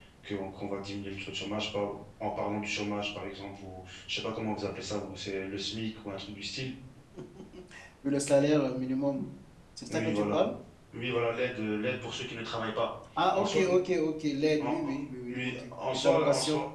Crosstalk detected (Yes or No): Yes